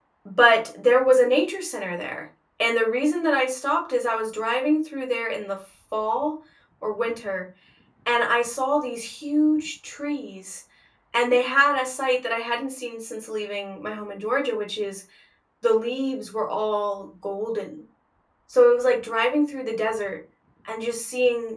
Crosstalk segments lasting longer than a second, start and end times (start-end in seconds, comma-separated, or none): none